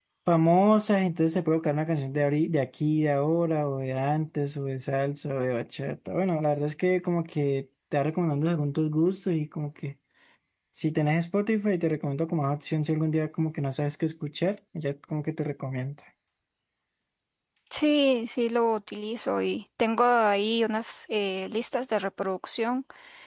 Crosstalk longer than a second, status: none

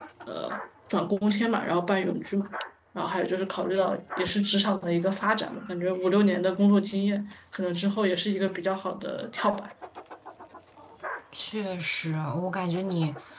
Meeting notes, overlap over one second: none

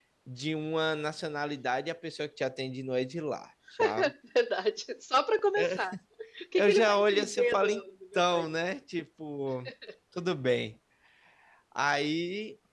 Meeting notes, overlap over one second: present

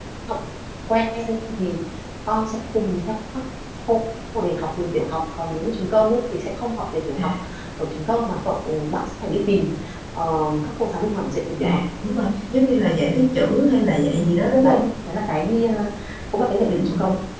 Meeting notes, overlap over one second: none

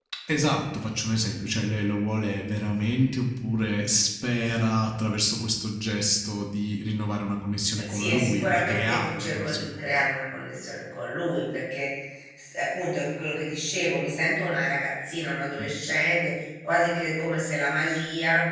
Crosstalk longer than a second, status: present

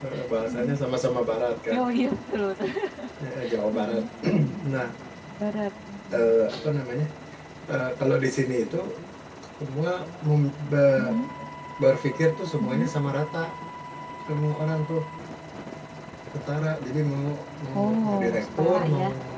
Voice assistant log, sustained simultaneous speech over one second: present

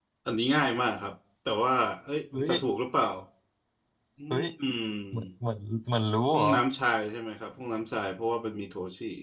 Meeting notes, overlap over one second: none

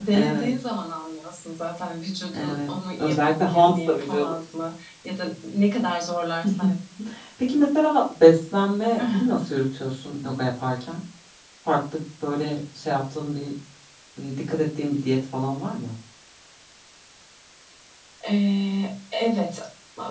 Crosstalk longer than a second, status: present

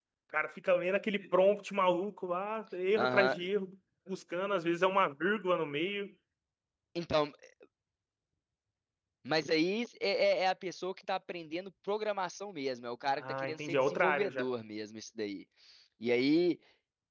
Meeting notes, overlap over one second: present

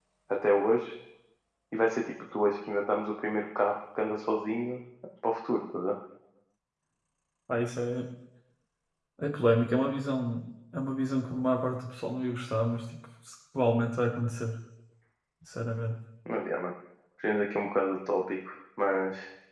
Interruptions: none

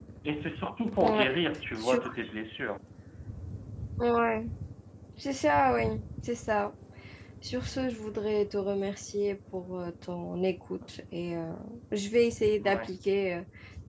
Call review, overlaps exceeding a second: none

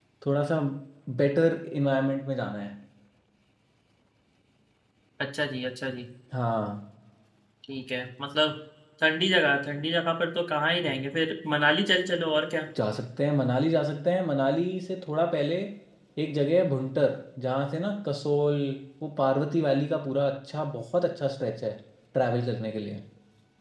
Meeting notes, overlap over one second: none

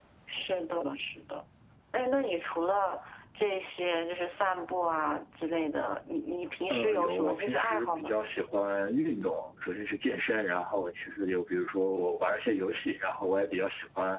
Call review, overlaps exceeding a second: present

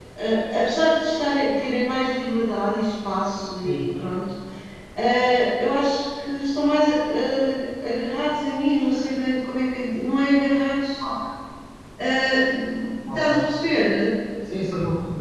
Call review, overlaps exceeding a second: none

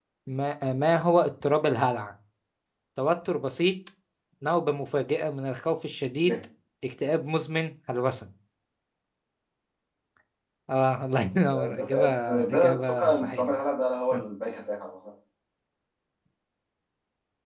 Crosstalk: present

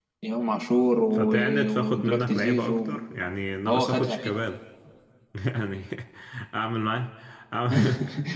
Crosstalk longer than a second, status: present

